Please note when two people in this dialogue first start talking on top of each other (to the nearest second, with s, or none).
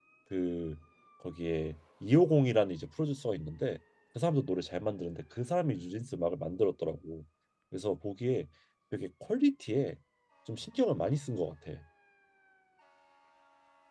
none